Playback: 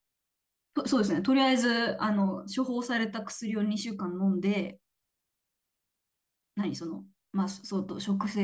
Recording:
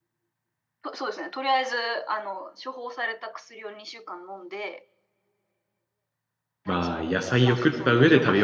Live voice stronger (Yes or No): Yes